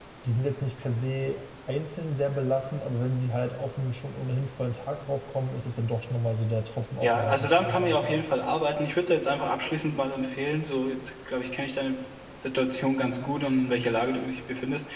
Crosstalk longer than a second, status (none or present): present